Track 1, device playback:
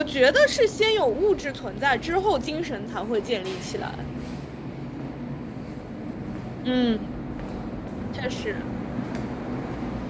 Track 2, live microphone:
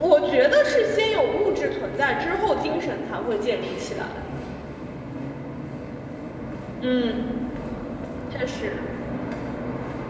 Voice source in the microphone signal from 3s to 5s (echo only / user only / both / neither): echo only